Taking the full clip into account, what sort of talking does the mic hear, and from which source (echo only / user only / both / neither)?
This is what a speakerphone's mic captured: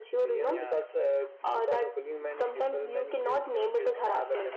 both